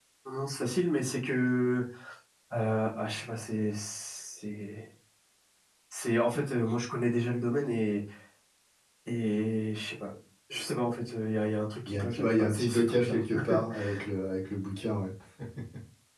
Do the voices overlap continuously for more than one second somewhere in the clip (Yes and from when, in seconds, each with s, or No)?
Yes, from 11.9 s